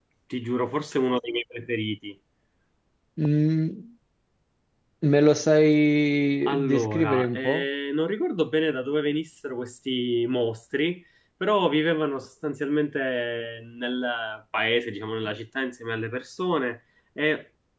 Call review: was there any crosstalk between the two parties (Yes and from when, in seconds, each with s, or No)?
Yes, from 6.5 s